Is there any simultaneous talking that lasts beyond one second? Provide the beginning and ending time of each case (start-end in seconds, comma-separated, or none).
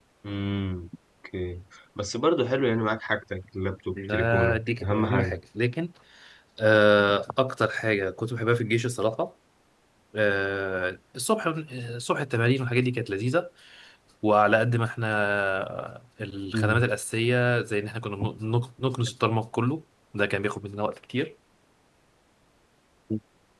4.0-5.4